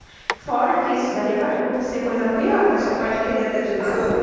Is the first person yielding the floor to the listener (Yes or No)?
Yes